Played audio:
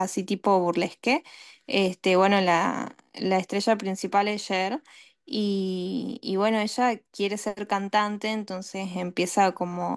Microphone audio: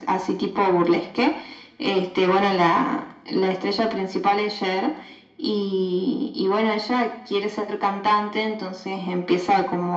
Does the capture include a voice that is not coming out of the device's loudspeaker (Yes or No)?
No